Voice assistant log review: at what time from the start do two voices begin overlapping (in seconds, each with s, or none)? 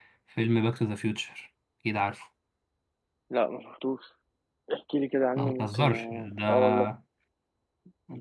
5.4 s